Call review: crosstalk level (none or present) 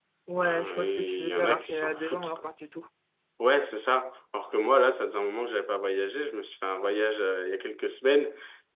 present